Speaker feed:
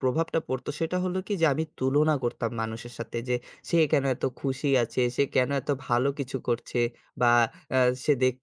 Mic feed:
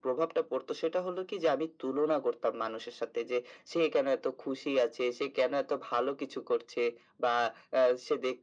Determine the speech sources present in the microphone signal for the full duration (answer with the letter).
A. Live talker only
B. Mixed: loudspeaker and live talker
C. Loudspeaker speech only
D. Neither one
C